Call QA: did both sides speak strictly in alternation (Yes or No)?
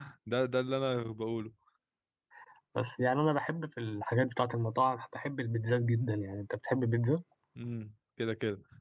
Yes